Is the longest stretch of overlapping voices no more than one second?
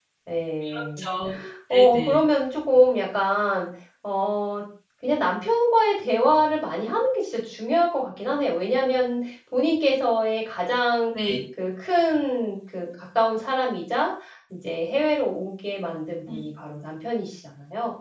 Yes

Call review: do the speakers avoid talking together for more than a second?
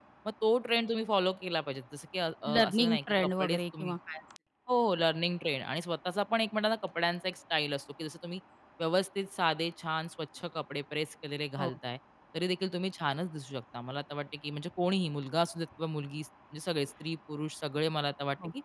No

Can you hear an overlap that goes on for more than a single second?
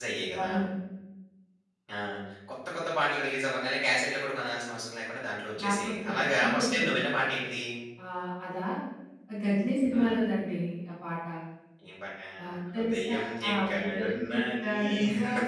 Yes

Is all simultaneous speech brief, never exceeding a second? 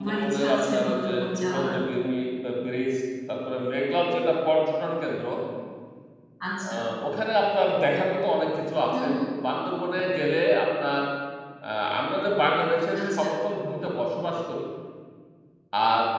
No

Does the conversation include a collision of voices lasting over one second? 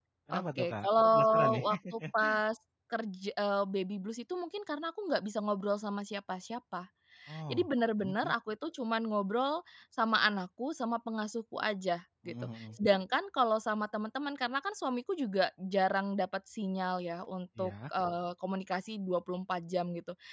Yes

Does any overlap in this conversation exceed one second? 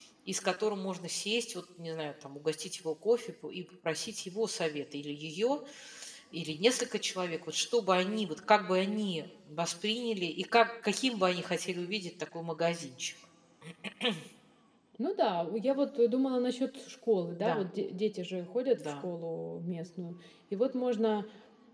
No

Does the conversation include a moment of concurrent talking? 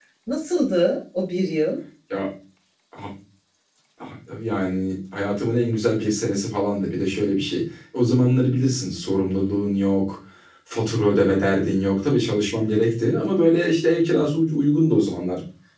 No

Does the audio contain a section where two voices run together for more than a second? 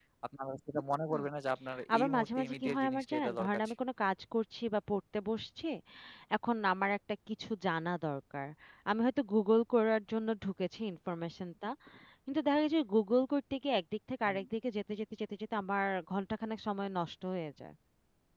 Yes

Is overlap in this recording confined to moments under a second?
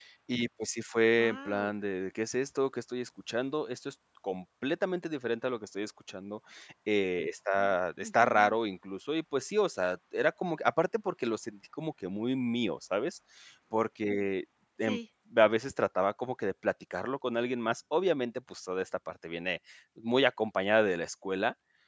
Yes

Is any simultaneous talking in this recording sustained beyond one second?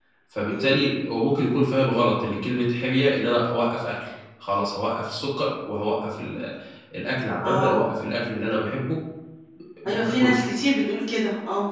No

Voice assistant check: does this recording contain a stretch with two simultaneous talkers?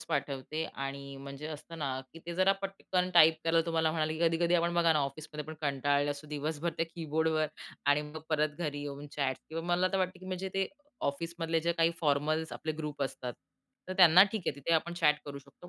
No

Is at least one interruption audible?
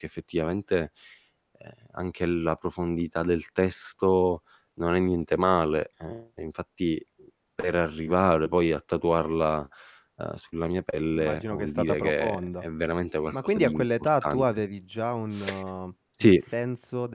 Yes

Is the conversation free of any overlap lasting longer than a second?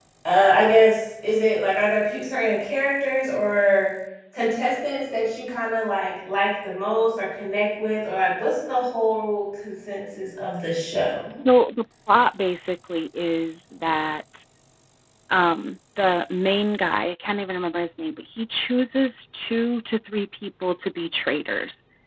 Yes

